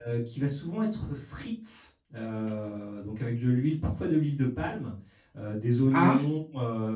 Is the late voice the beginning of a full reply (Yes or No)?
No